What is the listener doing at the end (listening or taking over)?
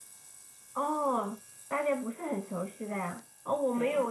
listening